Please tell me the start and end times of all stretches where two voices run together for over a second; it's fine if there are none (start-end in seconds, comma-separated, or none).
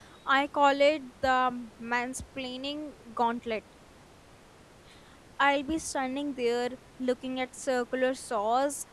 none